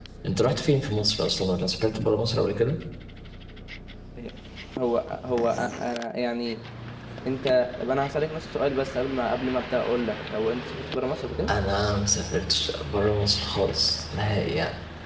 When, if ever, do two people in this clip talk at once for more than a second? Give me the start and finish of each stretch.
none

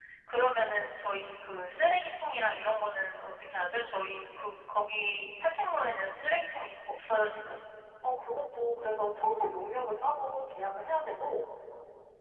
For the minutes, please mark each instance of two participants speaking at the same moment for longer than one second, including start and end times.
none

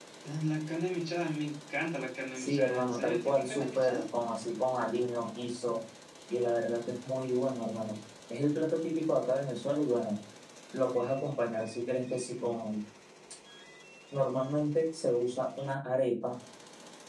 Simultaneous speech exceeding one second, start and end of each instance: 2.4-4.0

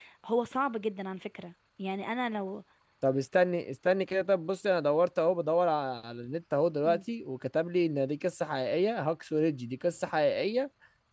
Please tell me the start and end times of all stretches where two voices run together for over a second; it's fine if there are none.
none

